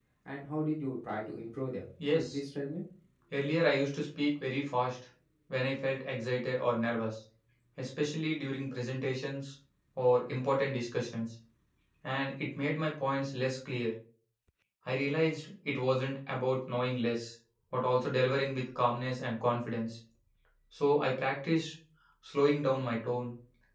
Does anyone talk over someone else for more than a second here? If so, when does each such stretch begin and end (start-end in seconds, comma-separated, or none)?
none